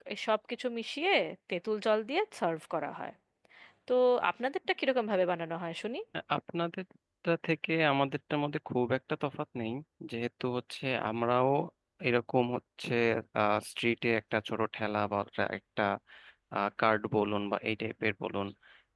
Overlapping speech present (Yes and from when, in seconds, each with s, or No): No